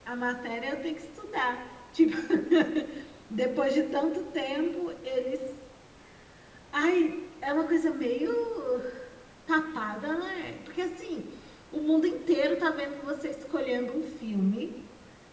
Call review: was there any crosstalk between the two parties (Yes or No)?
No